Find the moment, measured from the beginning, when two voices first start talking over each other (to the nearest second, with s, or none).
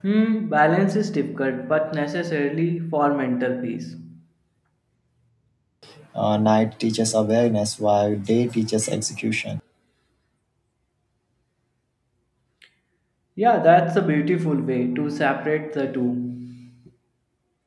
none